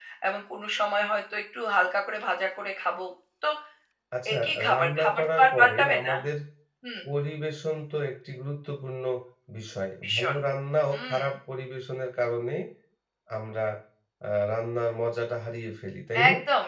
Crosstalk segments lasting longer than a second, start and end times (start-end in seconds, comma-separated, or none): 4.3-6.1